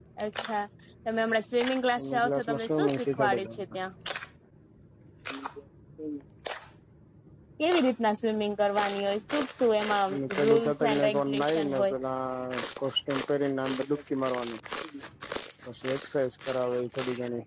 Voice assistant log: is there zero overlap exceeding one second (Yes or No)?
No